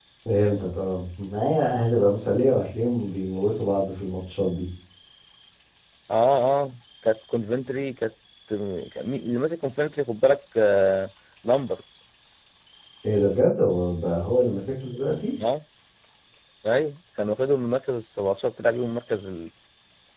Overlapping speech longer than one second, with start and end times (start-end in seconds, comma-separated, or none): none